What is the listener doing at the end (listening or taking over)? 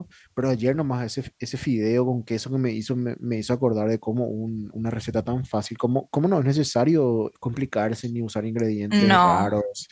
listening